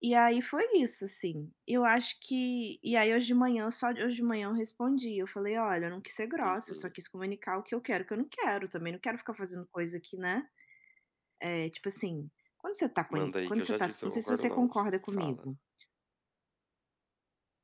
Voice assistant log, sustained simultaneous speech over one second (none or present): present